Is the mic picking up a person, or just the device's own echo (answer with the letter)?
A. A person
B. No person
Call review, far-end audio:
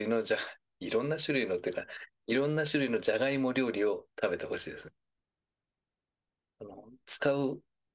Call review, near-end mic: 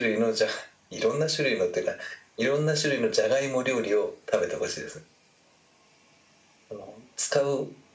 B